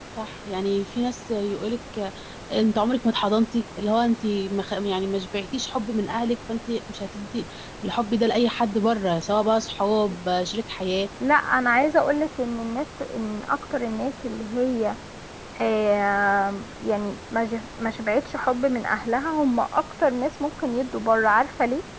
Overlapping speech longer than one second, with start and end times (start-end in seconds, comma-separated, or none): none